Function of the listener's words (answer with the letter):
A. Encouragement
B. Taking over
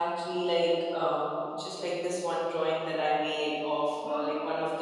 A